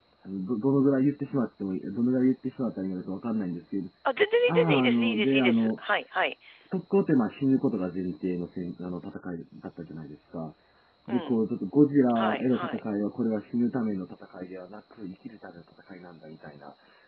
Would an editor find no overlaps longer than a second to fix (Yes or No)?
No